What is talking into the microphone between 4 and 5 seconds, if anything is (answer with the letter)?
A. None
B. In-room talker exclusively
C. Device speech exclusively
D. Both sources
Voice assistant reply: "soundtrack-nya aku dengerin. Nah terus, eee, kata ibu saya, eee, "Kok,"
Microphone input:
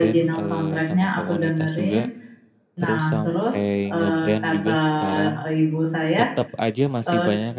D